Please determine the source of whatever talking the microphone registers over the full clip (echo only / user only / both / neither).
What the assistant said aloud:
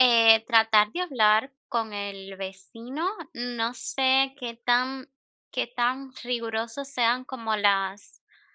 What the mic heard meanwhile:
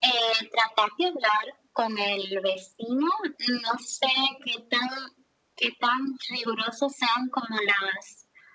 echo only